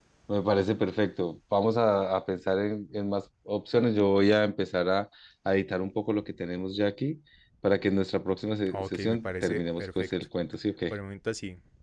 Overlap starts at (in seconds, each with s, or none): 8.7 s